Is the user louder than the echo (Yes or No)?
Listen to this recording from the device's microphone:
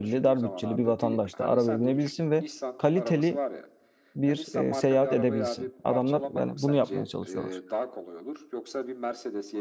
Yes